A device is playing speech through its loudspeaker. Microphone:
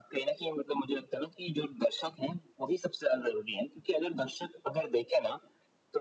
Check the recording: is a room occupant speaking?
No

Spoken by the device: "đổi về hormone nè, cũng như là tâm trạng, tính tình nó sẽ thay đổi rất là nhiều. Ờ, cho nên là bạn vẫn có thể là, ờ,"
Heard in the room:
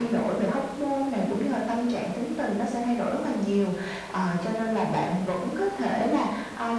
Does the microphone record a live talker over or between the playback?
No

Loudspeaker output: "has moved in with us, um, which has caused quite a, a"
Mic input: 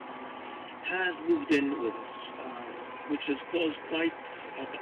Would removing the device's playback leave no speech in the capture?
Yes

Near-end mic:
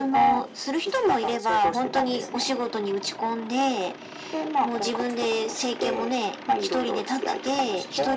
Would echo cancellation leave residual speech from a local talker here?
No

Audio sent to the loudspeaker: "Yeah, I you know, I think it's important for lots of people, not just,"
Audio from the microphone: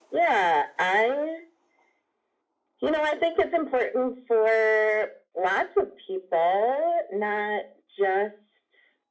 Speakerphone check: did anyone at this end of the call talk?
No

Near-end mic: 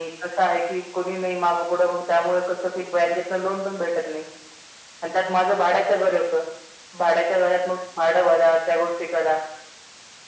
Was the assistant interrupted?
No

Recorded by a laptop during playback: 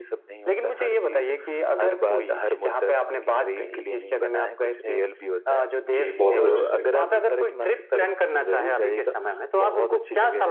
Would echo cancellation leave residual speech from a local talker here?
Yes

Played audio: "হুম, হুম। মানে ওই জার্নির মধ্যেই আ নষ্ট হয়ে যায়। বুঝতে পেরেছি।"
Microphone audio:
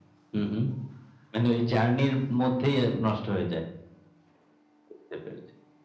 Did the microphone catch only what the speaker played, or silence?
Yes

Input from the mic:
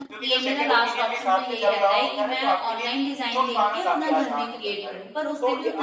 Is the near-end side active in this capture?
Yes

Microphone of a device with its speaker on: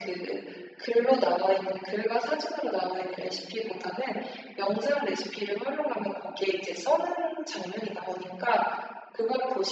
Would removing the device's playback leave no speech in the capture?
Yes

